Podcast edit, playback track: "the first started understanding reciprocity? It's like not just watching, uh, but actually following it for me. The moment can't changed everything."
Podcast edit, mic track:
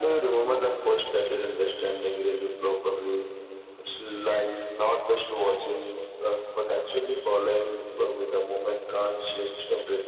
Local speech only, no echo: none

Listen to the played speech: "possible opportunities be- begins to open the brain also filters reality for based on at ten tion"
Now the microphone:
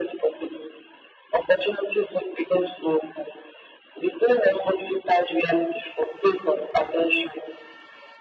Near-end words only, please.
none

